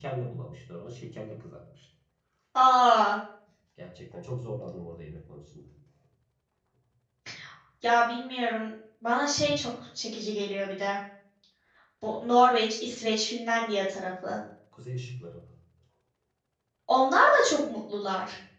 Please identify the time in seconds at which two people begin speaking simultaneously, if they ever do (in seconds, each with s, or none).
none